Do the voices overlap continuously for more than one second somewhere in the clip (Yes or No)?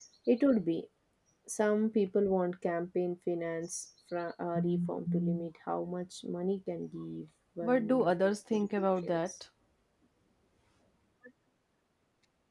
Yes